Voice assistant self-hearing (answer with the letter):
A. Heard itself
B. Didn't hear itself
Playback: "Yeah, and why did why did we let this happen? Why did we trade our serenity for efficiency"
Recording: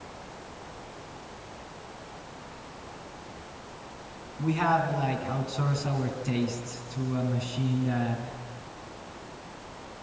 B